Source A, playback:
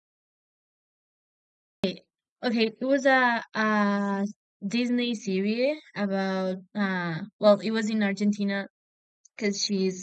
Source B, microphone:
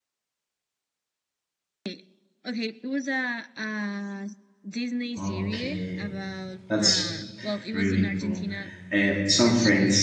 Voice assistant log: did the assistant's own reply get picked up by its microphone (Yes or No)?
Yes